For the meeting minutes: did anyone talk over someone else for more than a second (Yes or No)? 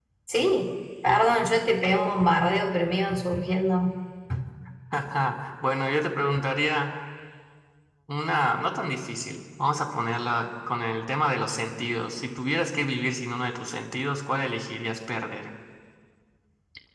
No